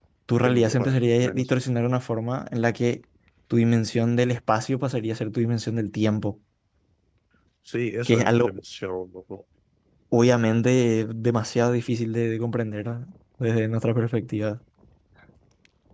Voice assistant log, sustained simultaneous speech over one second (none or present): none